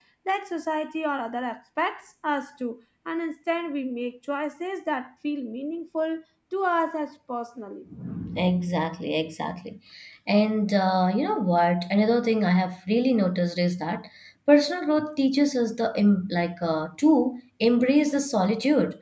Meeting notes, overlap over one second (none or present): none